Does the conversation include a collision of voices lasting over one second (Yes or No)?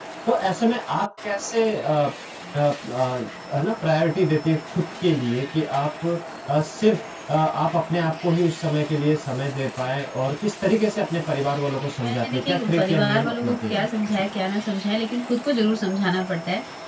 Yes